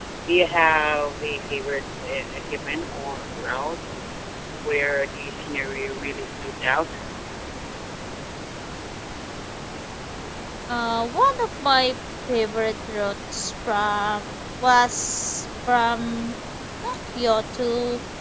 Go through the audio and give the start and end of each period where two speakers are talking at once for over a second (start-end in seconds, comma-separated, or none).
none